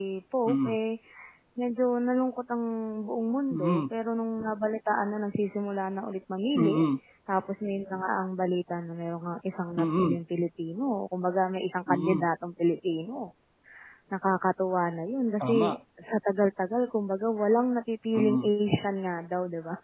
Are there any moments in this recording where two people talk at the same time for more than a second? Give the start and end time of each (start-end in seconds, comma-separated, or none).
none